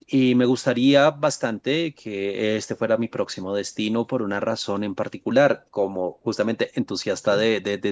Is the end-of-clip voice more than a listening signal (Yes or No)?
No